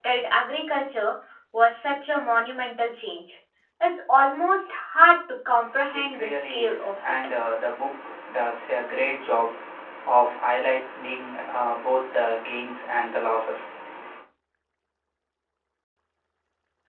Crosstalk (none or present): present